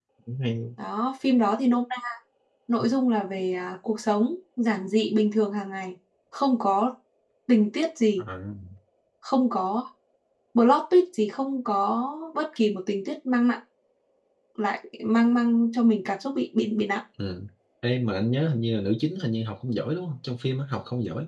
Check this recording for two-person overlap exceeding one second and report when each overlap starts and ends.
none

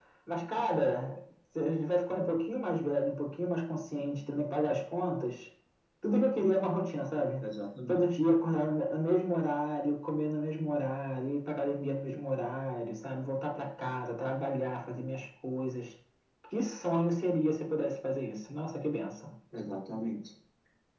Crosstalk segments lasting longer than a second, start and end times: none

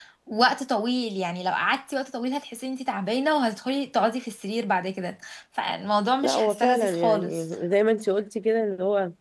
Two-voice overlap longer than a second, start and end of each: 6.2-7.4

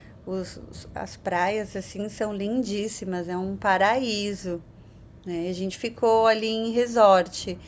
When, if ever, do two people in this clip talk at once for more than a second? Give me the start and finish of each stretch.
none

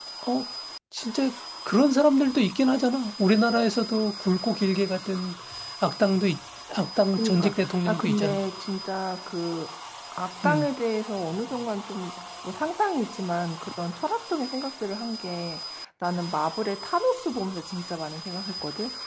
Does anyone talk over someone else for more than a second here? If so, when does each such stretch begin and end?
7.1-8.4

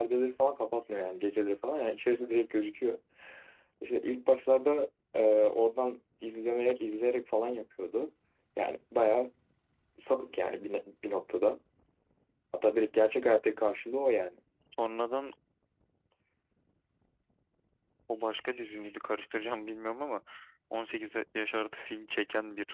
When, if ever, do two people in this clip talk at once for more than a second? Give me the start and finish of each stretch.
none

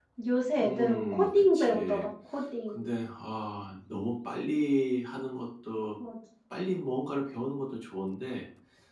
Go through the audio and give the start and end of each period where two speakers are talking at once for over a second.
0.6-2.1

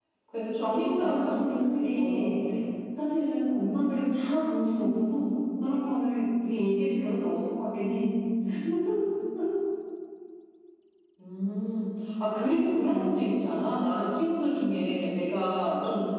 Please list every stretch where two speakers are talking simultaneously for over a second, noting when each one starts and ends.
0.6-2.3

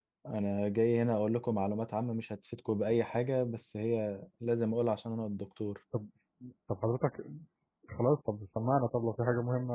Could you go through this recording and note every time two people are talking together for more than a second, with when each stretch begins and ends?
none

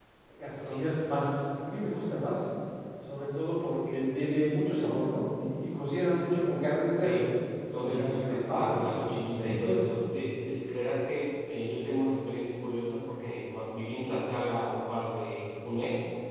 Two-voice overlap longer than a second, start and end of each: 7.7-9.8

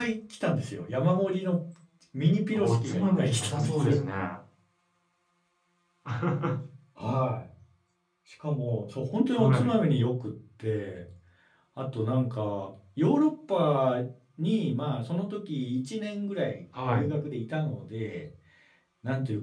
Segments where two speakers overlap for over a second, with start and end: 2.5-4.0

